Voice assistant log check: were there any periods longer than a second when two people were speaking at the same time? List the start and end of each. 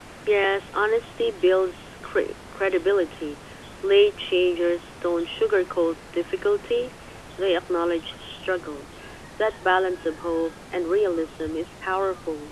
none

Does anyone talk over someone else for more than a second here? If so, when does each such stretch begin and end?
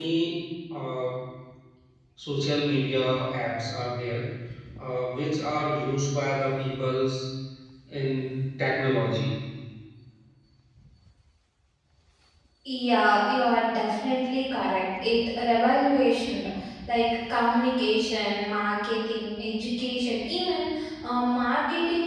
none

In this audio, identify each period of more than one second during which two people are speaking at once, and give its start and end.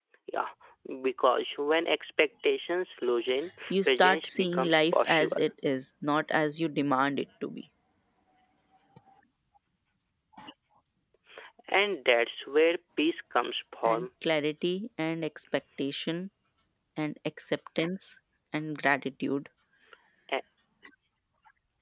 3.8-5.5

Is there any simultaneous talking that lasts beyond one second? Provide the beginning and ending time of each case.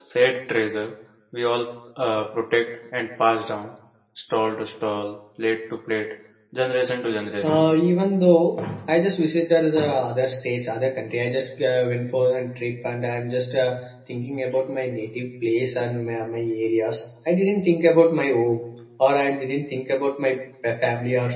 none

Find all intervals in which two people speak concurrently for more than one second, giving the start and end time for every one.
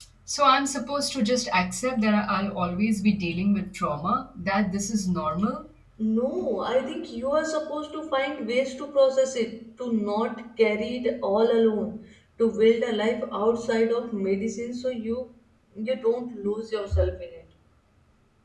none

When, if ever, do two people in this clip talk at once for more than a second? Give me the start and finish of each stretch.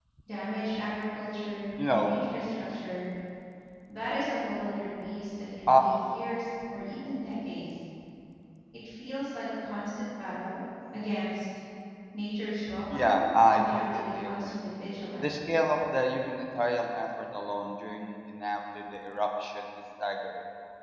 12.9-14.6

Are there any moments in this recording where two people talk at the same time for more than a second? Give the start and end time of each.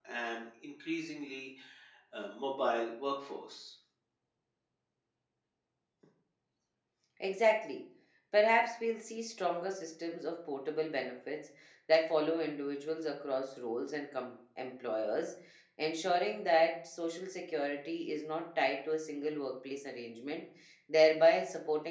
none

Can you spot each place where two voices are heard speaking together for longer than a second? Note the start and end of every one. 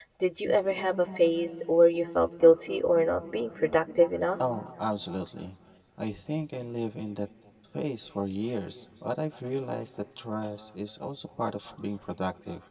none

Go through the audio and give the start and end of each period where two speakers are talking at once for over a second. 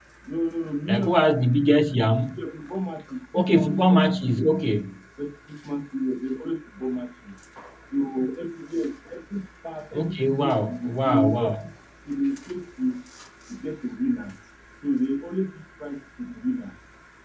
3.3-4.6, 9.9-11.7

